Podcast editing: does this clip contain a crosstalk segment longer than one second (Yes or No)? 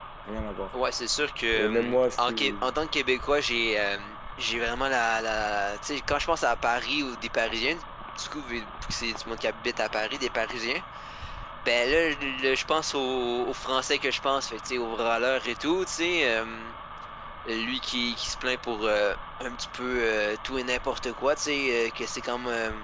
Yes